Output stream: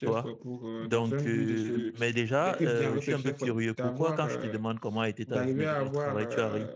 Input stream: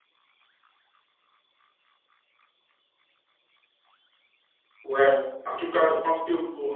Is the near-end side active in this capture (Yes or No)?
Yes